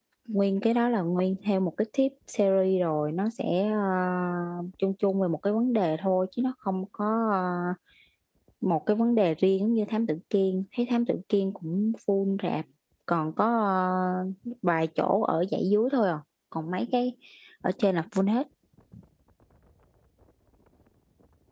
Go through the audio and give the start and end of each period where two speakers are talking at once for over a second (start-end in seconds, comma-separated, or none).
none